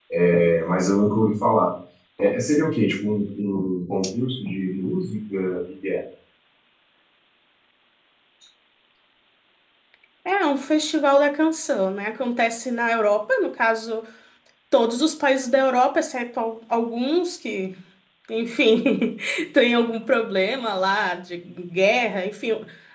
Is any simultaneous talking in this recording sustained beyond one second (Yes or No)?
No